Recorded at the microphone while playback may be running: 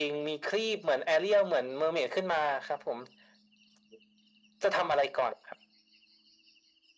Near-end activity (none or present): none